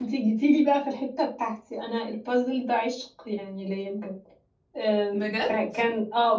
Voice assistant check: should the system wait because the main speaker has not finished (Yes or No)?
Yes